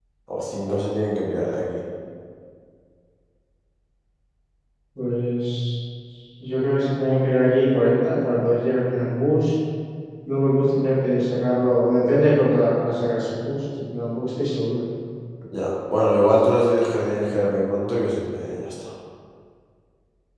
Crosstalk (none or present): none